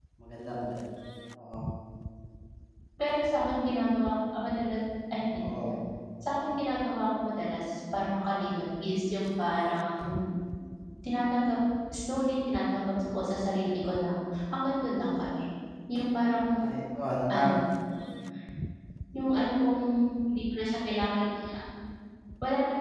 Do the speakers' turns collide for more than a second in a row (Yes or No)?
No